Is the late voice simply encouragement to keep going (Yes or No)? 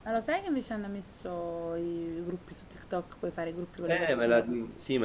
No